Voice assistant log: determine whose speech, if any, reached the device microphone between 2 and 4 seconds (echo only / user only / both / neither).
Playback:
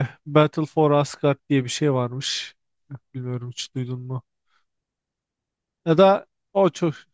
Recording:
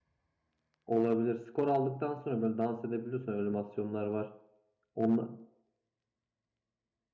user only